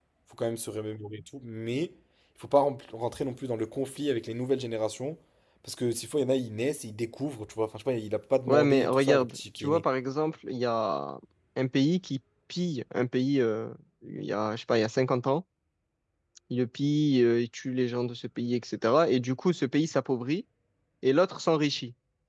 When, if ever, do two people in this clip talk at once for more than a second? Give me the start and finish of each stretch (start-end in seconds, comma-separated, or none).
8.5-9.8